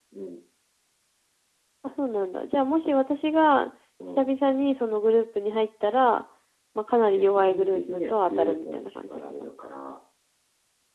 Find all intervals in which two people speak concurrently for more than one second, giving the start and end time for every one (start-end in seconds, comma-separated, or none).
7.1-9.5